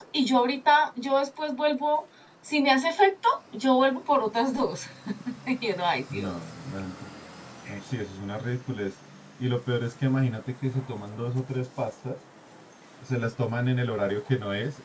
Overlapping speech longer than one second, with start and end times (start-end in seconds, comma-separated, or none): none